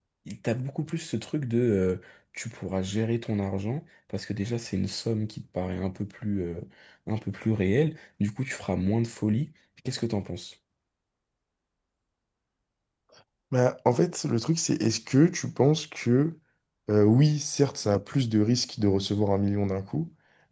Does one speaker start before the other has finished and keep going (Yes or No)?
No